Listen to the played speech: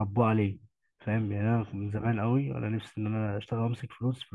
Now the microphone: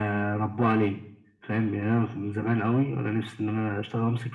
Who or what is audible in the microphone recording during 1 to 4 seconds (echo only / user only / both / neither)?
echo only